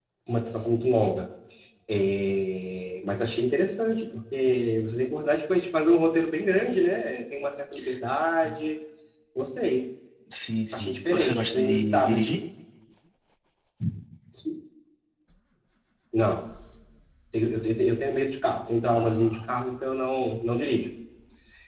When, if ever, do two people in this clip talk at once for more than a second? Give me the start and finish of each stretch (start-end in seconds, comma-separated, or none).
10.7-12.4